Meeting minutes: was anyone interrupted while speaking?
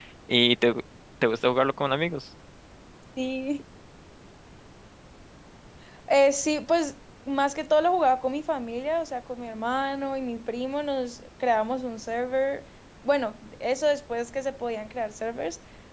No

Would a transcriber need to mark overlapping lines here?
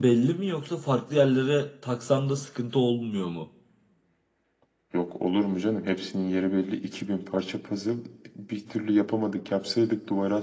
No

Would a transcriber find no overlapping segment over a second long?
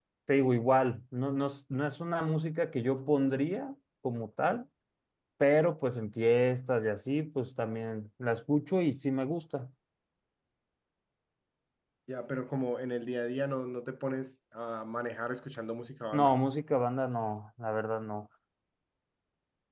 Yes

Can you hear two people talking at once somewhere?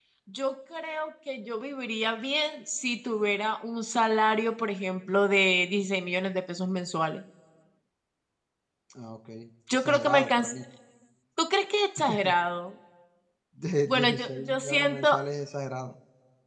Yes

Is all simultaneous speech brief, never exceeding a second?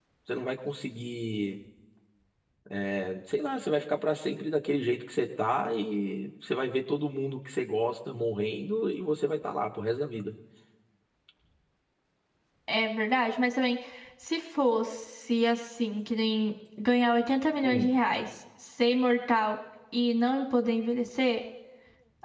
Yes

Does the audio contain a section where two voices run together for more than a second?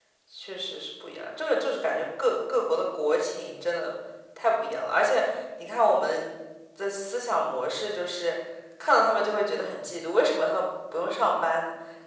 No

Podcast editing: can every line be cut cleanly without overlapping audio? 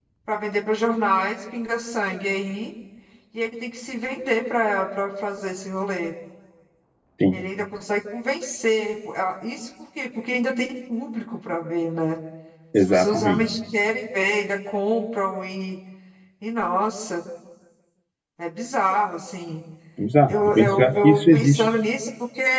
No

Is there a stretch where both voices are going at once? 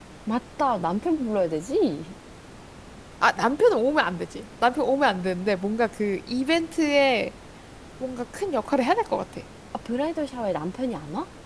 No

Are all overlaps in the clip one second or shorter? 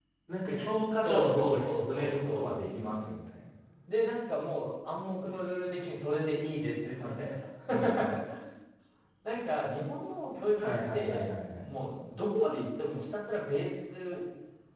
No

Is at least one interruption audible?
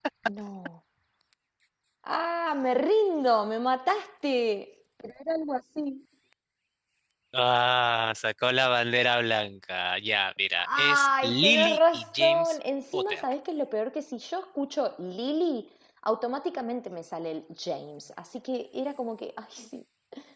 Yes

